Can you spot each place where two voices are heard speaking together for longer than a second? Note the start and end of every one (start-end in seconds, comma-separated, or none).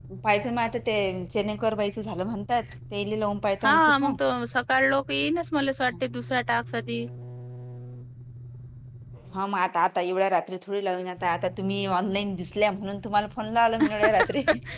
none